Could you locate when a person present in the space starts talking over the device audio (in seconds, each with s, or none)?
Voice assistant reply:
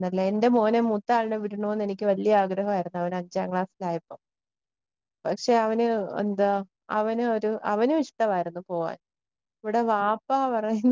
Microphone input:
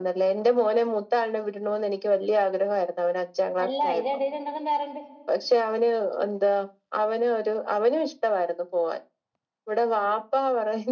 3.6 s